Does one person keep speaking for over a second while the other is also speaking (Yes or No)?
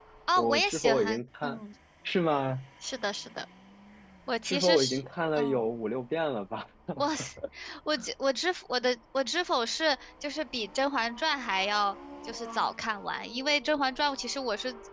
Yes